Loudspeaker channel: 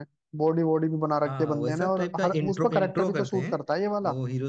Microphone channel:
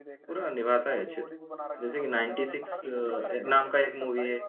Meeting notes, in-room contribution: present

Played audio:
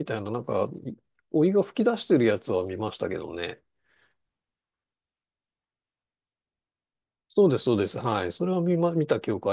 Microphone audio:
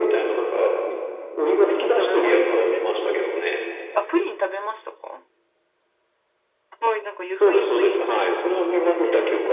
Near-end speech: present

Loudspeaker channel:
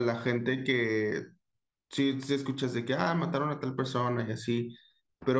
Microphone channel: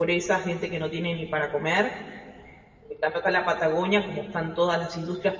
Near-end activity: present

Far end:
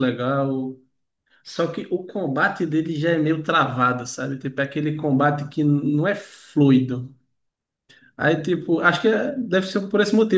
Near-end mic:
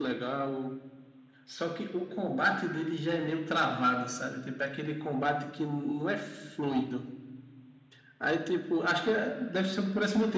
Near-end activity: none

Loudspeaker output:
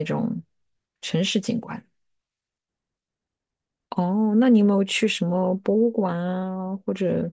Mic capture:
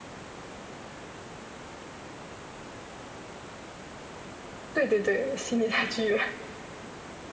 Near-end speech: present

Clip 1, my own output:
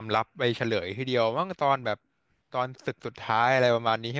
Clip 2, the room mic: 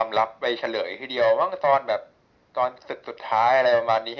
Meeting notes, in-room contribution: none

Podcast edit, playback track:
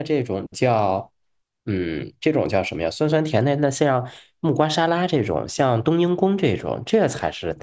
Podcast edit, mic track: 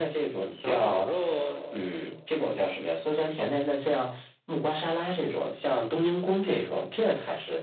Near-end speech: present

